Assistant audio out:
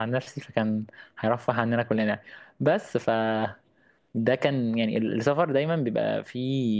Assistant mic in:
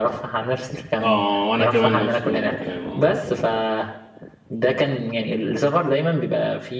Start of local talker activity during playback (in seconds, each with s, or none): 1.0 s